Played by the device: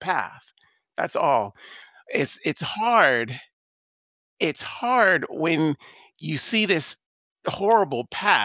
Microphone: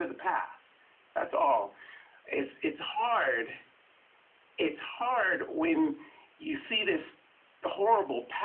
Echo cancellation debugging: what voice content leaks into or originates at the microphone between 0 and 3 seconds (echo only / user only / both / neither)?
echo only